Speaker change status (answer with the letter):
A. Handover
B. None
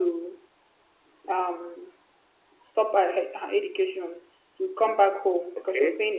B